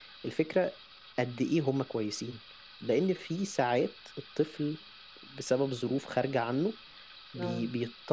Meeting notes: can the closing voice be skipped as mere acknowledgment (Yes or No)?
Yes